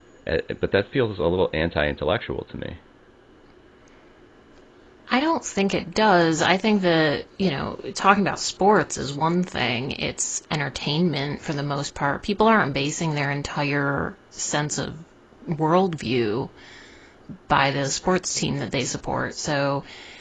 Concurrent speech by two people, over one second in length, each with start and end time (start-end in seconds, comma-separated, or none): none